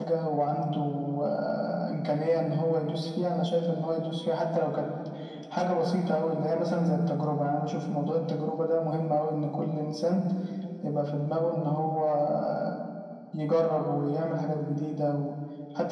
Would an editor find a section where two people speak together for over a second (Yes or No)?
No